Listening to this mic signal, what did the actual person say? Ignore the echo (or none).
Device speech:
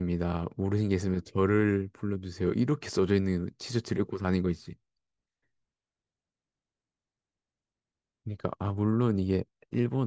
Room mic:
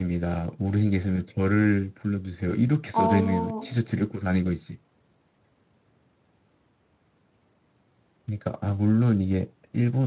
어,